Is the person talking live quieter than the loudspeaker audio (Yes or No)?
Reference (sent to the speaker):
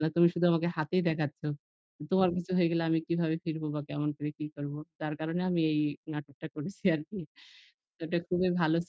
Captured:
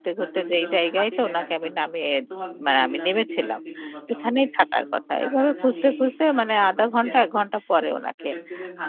No